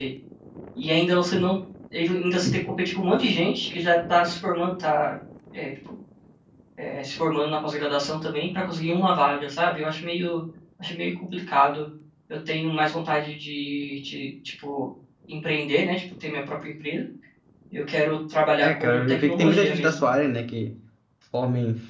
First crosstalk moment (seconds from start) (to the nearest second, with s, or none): 19 s